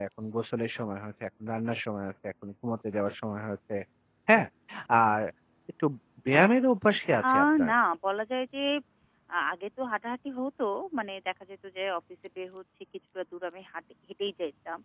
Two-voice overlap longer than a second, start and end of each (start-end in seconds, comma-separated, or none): none